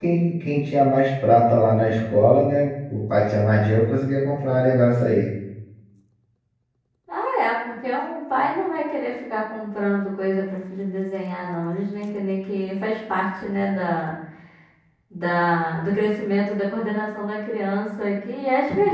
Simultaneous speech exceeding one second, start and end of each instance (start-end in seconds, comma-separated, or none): none